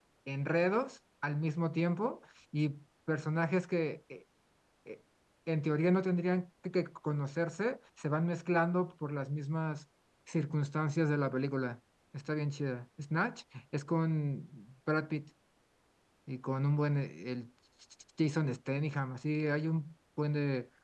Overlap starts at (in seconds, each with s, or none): none